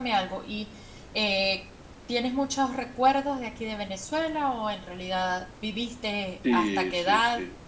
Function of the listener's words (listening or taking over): taking over